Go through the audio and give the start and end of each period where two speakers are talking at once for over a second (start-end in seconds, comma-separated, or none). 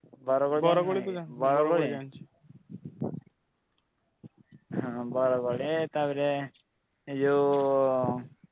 0.6-1.9